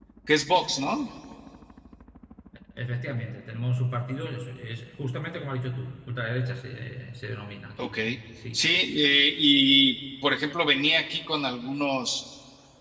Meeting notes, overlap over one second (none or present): none